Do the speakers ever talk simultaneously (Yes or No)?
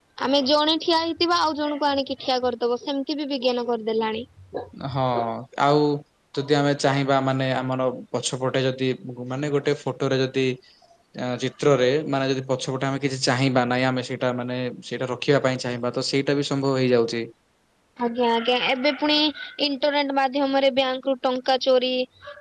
No